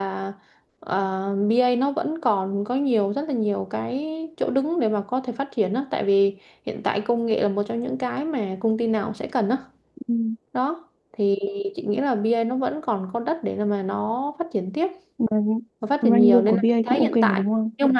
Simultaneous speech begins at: 16.0 s

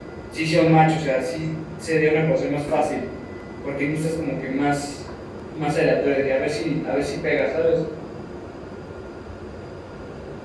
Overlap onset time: none

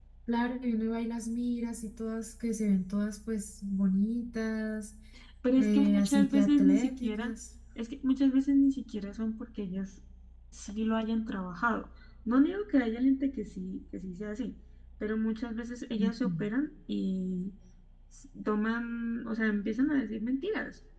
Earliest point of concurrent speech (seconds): 5.6 s

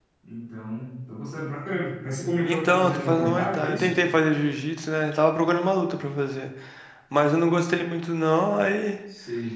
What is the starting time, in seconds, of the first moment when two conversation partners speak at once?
2.4 s

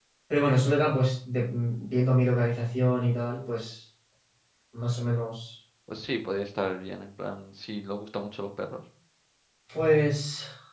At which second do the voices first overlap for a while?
none

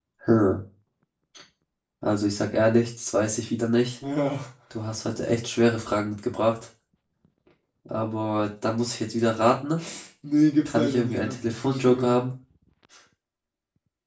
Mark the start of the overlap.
10.7 s

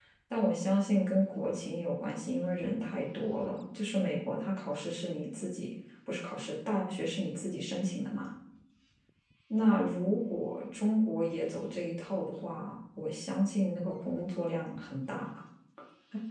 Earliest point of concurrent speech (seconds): none

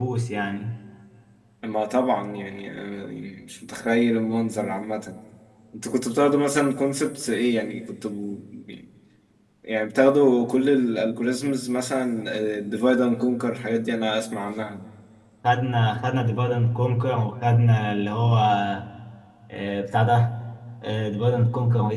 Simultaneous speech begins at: none

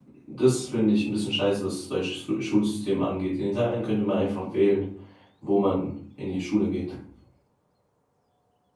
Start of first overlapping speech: none

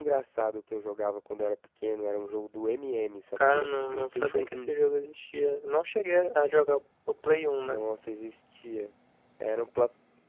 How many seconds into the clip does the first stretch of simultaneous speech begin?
3.4 s

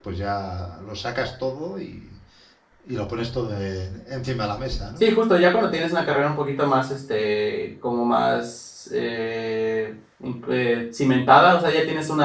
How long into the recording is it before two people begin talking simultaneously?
none

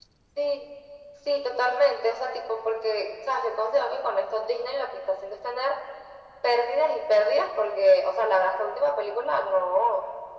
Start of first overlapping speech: none

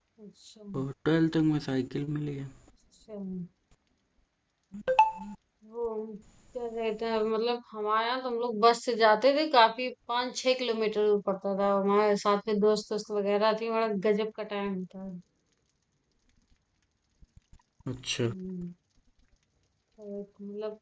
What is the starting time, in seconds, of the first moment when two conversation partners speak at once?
none

